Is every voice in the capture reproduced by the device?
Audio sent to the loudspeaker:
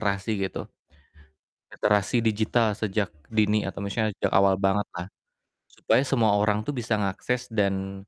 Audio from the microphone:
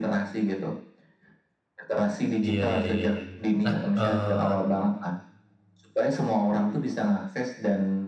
No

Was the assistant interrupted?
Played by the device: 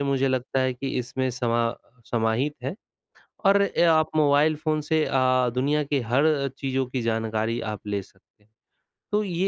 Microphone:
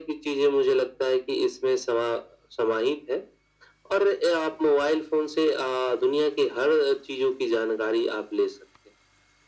No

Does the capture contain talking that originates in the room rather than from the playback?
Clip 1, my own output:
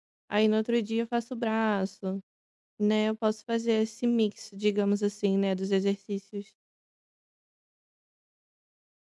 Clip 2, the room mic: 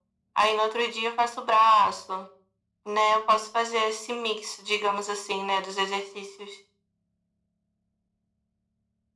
No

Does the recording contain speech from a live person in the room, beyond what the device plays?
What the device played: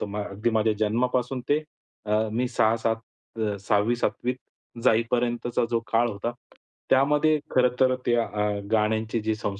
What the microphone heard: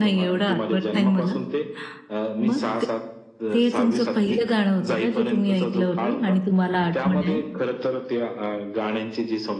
Yes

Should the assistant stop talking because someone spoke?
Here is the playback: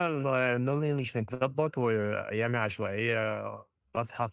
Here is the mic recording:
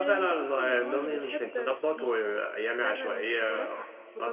Yes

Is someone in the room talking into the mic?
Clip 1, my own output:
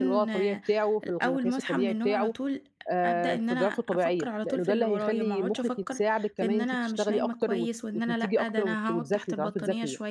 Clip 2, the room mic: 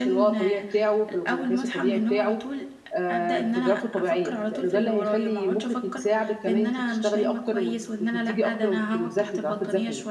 No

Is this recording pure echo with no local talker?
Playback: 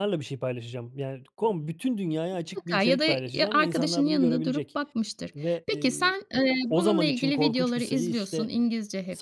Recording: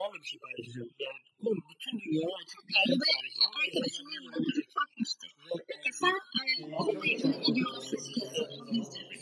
No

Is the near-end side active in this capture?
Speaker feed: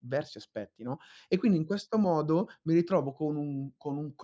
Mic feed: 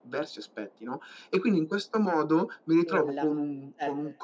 Yes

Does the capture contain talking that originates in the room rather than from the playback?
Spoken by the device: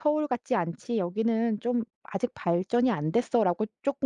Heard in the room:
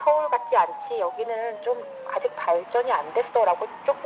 No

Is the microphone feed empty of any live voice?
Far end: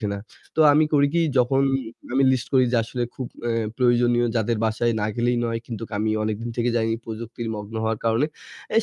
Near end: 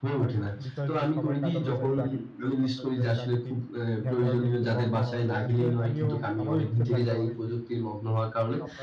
No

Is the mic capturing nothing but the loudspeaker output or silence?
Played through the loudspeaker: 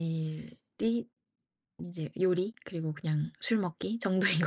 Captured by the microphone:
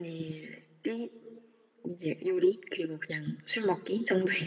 Yes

